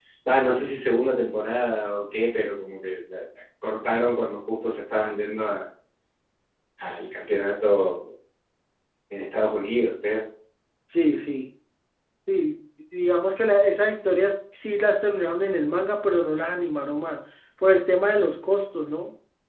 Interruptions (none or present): none